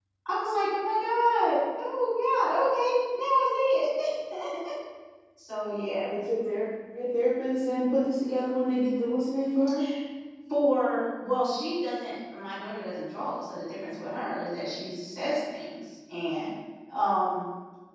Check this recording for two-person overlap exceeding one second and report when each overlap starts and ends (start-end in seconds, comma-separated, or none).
none